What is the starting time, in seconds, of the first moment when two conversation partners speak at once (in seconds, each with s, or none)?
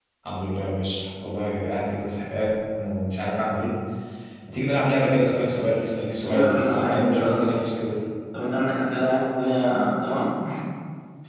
6.3 s